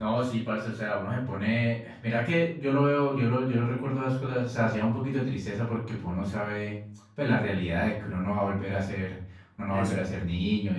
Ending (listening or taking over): listening